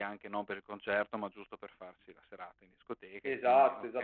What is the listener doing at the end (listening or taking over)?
taking over